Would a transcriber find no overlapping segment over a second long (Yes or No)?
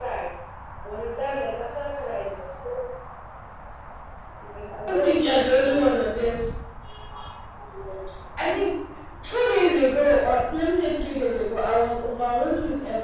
No